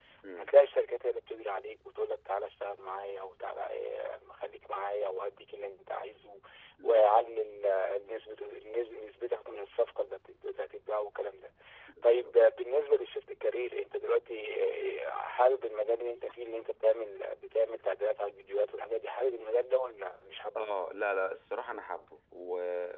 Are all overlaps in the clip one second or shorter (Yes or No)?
Yes